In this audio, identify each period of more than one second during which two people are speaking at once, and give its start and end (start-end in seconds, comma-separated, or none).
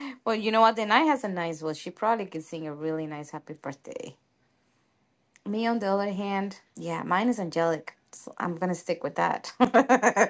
none